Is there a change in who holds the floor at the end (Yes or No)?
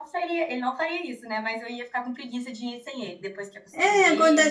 Yes